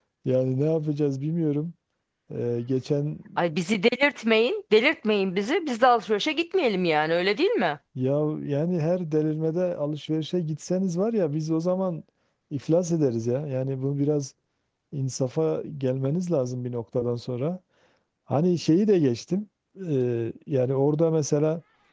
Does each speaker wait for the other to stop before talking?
Yes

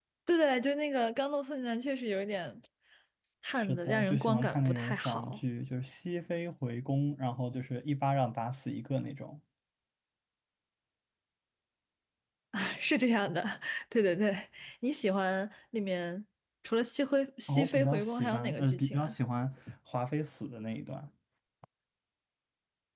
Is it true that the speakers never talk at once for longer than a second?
No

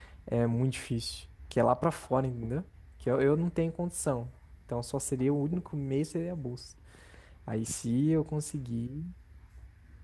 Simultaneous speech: No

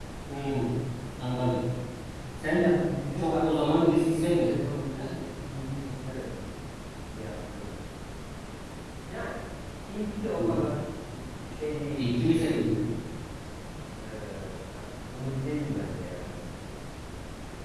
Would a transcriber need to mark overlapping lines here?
Yes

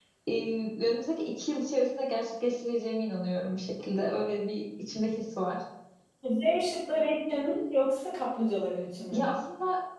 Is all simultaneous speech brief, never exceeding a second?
Yes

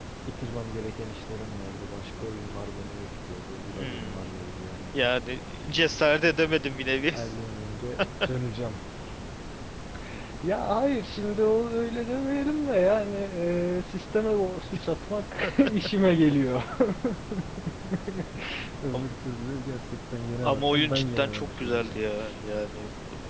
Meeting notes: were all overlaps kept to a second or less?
No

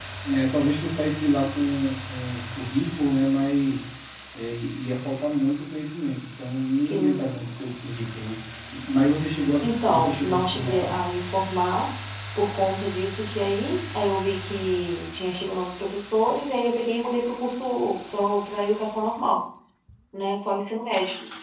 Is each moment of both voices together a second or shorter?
No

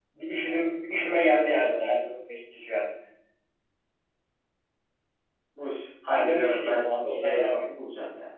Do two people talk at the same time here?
Yes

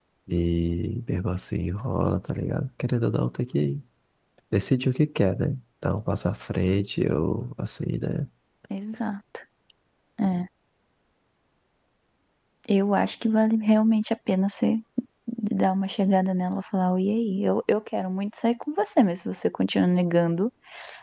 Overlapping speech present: No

